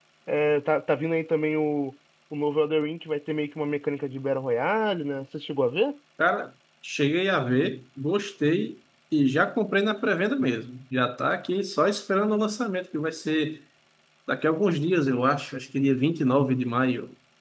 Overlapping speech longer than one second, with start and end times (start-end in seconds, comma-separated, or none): none